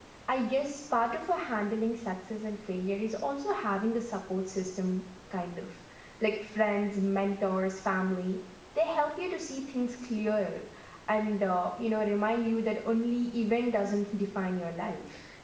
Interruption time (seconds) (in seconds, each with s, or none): none